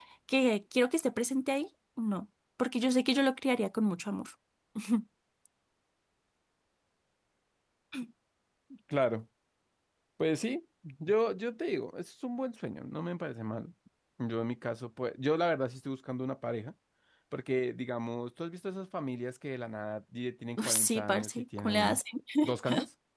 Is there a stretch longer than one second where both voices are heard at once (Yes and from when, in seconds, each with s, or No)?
Yes, from 20.6 s